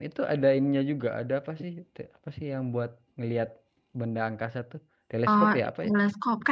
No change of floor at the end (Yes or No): No